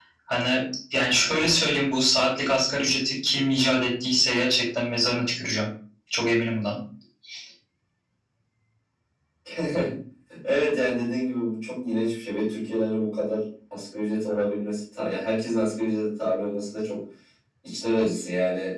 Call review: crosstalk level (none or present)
none